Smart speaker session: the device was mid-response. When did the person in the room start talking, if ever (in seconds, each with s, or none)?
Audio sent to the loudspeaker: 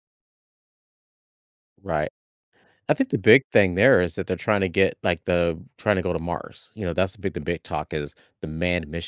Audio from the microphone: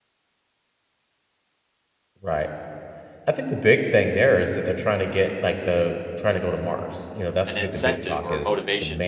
7.4 s